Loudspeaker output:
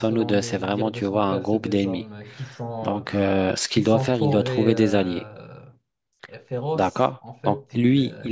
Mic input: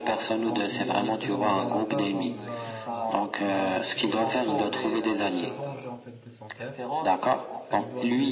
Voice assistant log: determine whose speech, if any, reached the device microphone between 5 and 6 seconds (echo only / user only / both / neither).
both